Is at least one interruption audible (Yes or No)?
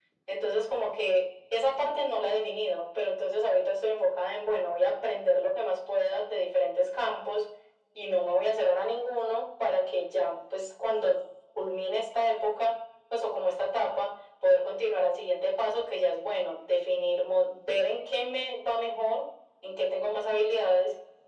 No